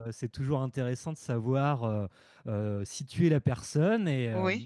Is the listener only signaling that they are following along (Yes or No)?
Yes